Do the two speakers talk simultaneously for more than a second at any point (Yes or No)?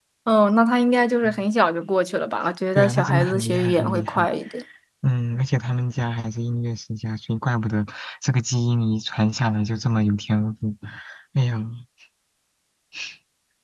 Yes